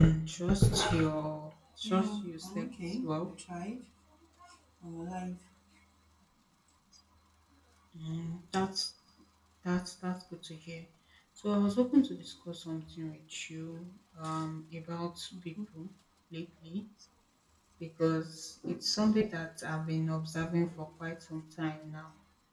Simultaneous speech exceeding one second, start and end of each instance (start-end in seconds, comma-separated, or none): 1.9-3.3